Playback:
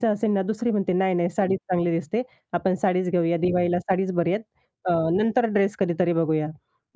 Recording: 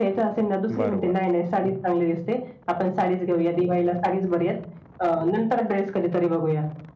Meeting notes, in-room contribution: present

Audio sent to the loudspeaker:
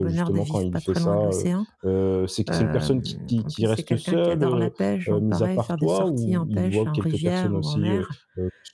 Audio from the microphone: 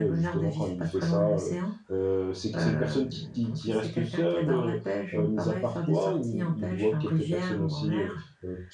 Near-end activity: none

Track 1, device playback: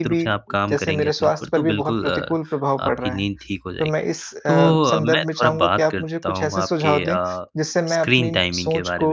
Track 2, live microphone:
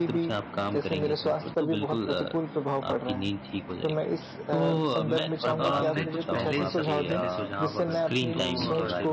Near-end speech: present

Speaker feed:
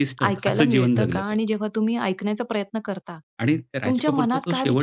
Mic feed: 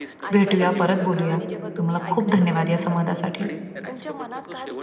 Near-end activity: present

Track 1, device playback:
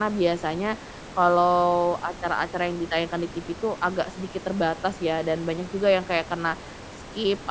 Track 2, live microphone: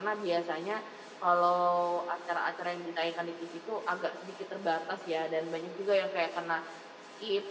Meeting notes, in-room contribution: none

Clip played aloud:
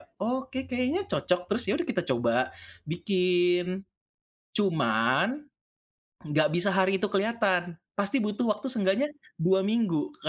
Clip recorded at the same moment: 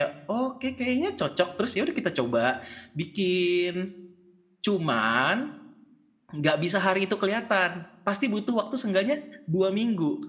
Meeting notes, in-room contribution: none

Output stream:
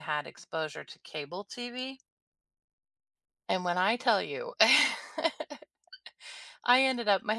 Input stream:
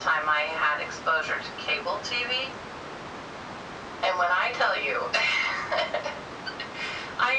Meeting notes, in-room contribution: none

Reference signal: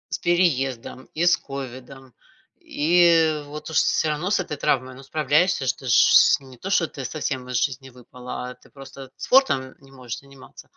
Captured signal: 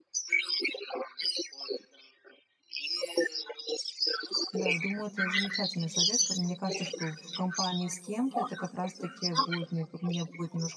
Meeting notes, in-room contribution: present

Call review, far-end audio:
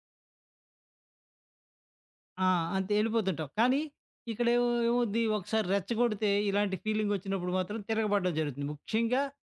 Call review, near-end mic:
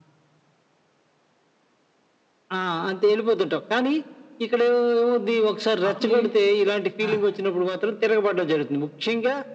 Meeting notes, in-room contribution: present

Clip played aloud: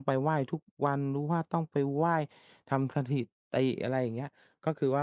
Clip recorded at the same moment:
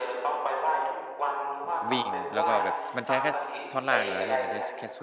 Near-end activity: present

